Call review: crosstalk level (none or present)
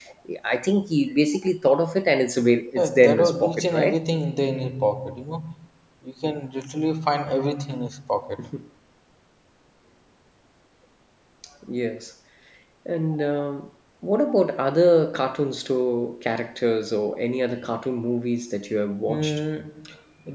present